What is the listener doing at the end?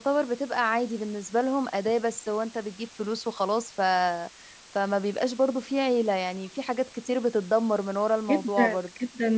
taking over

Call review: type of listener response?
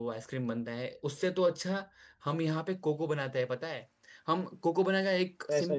listening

